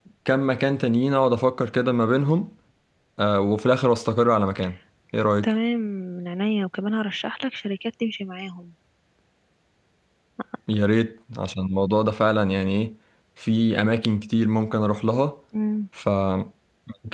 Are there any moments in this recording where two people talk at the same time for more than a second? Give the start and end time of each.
none

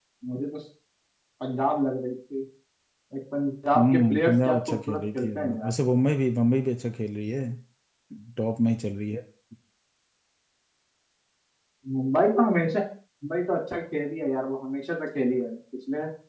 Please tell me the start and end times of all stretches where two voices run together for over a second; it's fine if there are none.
3.8-5.7

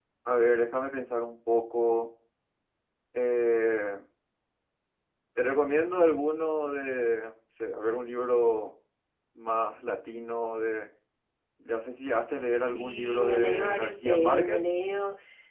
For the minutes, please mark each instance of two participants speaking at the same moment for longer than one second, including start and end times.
12.7-14.7

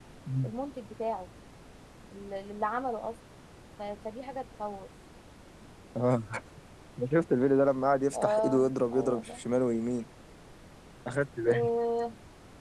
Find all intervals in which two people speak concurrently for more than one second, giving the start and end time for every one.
8.1-9.4

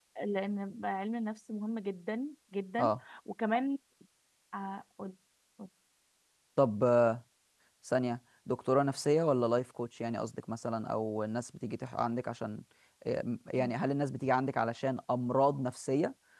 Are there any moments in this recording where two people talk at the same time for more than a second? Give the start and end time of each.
none

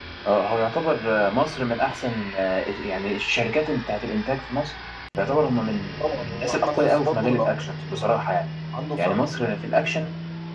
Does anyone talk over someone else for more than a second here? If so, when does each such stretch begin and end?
6.1-7.5

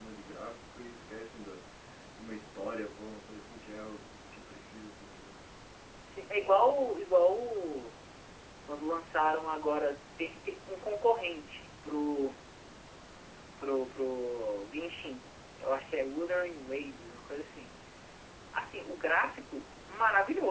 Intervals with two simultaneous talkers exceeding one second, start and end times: none

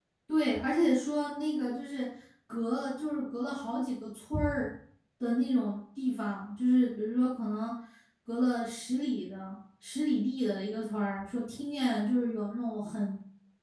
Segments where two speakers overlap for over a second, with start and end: none

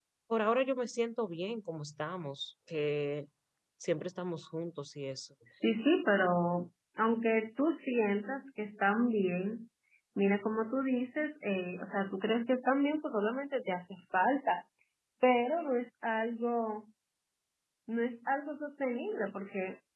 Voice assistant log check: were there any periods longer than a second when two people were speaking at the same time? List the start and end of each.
none

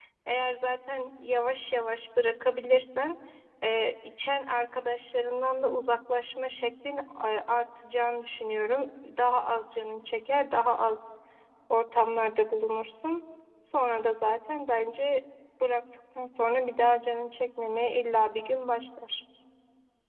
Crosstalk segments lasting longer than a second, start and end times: none

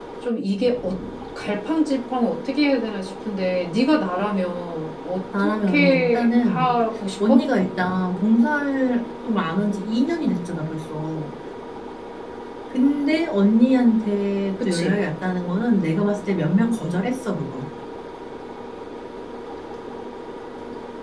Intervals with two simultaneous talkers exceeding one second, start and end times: 5.4-6.7

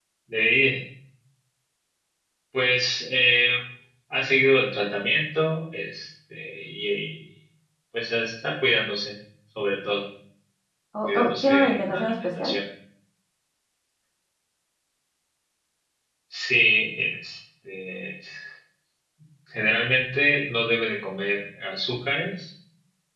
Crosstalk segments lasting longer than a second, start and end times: 11.0-12.5

